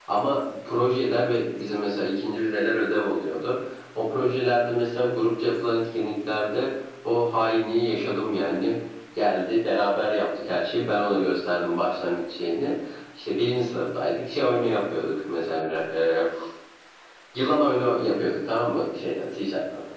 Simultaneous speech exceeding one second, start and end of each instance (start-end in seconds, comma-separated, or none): none